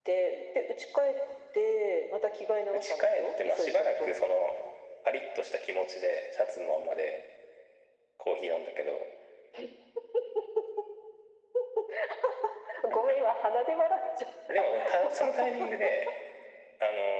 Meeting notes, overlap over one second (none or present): present